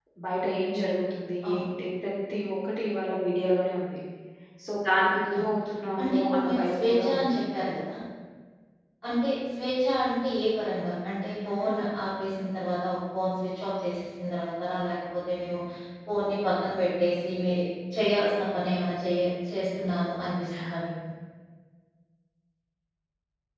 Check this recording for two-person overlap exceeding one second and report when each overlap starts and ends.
6.0-7.4

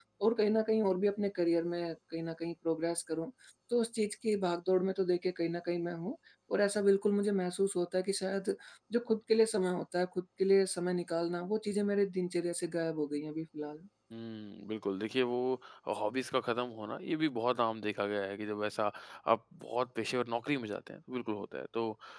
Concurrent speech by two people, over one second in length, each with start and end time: none

